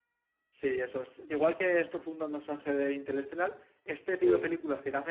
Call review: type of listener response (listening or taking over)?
listening